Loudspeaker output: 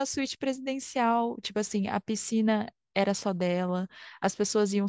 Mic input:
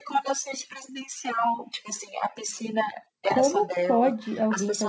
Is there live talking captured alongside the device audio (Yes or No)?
Yes